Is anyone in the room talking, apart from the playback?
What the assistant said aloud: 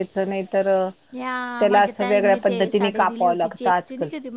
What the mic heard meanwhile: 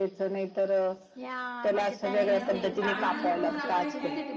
Yes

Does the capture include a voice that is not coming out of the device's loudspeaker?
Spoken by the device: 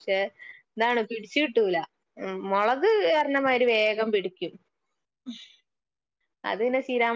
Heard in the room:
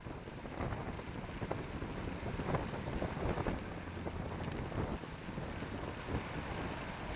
No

